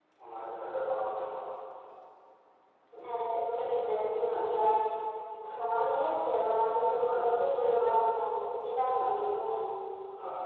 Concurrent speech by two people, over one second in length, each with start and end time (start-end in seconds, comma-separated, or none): none